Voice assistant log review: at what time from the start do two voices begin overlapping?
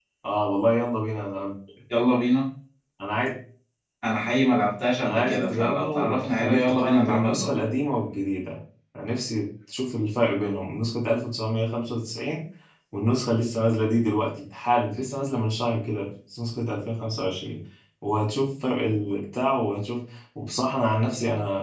5.0 s

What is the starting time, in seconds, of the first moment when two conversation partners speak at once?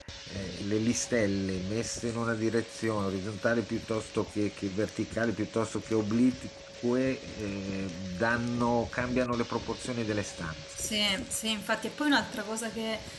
none

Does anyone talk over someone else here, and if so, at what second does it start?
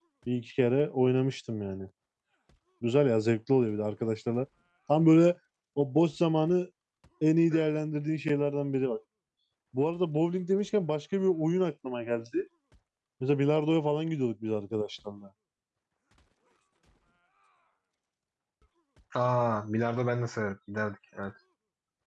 none

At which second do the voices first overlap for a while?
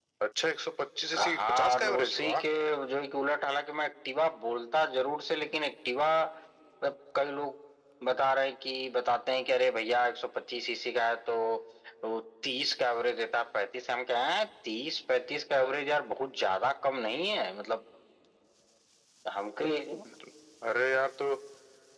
1.2 s

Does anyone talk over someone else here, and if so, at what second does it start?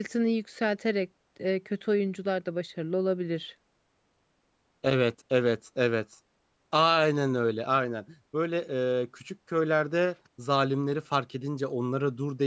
none

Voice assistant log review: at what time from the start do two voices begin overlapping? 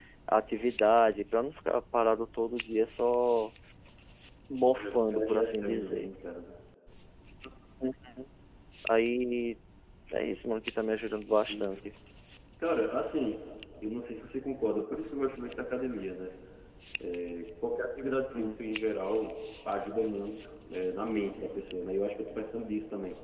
4.7 s

